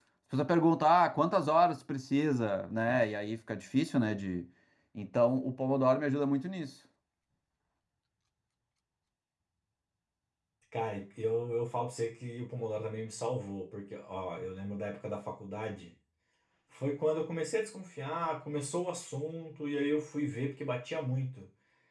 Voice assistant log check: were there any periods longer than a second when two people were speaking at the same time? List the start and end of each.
none

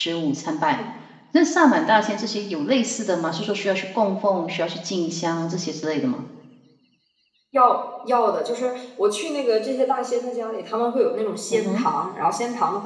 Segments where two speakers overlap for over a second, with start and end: none

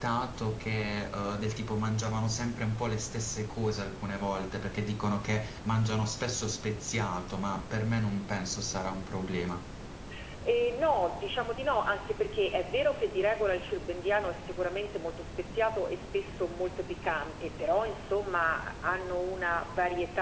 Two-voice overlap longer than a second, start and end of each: none

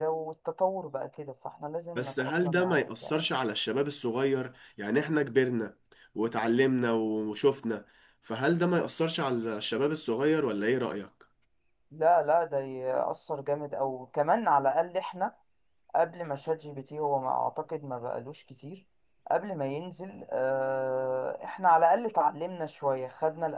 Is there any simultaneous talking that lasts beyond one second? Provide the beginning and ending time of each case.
1.9-3.2

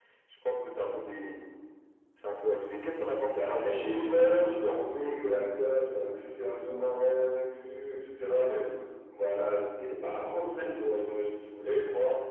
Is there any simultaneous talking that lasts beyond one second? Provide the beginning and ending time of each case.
3.3-4.8

